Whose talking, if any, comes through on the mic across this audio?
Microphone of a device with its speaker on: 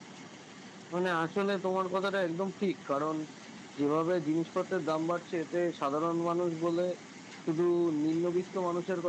user only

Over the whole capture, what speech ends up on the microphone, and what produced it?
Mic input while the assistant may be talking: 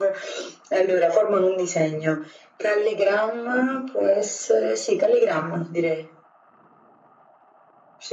echo only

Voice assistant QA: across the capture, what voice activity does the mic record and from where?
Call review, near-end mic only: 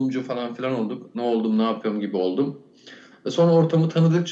echo only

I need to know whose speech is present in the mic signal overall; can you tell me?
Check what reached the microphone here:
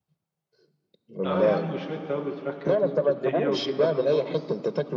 both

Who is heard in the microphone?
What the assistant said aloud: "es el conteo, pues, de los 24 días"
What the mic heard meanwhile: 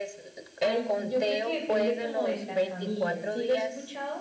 both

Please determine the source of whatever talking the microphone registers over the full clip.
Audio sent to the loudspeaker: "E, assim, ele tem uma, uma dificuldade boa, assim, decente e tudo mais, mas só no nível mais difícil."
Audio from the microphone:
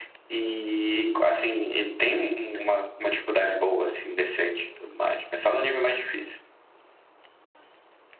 echo only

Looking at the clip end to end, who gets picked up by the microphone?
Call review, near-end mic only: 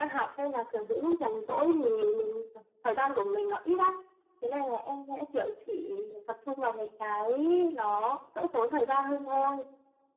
echo only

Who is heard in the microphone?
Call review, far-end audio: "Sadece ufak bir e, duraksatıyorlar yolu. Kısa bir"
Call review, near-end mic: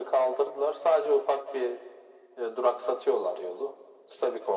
echo only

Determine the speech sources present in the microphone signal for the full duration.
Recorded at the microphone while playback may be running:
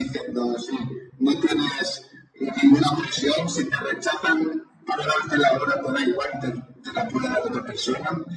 echo only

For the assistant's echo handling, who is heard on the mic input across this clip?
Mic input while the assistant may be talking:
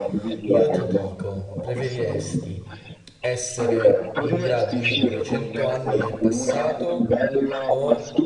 both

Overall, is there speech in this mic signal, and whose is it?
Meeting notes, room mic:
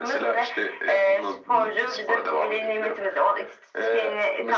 both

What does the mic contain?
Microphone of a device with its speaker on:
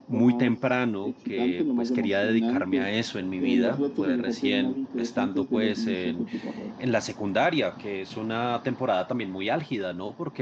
both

